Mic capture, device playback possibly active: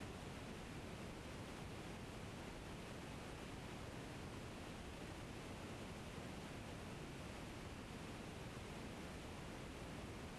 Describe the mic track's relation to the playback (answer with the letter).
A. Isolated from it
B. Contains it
A